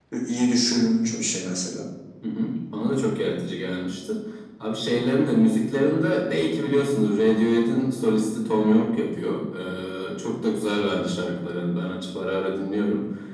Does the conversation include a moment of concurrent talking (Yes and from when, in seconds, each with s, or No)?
No